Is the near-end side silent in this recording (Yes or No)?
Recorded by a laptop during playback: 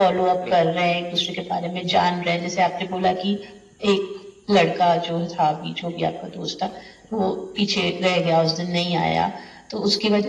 No